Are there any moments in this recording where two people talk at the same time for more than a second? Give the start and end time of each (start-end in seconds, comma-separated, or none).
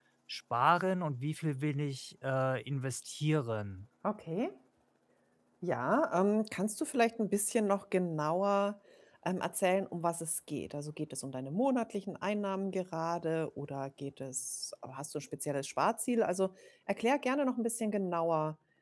none